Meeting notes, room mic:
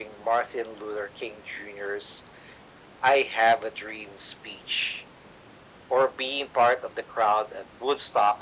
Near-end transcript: none

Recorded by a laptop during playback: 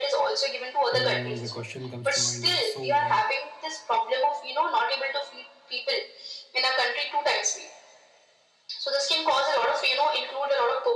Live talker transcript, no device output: you know the question comes to mind is so why

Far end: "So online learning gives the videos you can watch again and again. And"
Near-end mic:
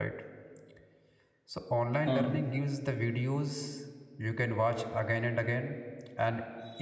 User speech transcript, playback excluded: hmm,

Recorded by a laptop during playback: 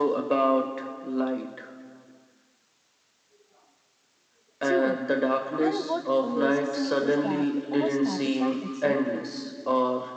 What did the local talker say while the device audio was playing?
True. And what amazes me is that it all started by accident.

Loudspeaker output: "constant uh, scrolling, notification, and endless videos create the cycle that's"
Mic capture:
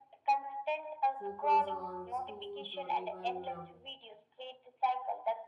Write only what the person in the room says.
focus on schools or even uh,

